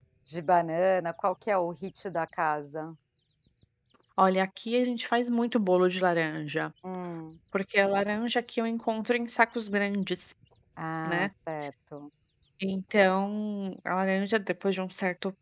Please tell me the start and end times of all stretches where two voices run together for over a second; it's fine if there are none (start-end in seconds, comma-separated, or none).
none